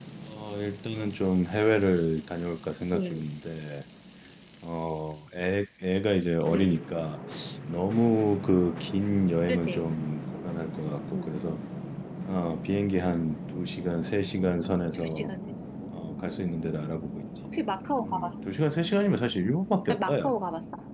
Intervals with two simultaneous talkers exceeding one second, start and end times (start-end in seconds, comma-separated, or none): none